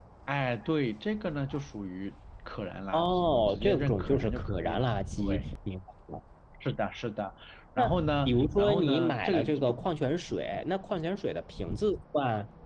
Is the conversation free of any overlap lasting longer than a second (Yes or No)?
No